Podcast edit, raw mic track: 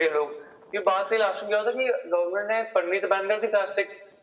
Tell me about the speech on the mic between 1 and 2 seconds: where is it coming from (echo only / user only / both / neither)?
echo only